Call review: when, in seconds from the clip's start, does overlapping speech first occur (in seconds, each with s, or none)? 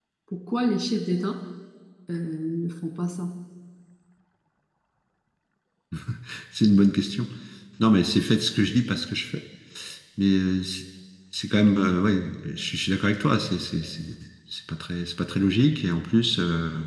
none